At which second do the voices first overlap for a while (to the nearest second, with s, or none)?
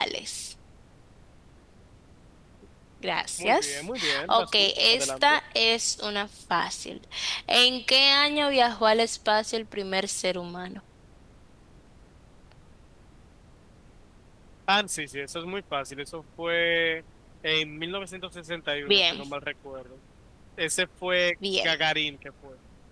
3 s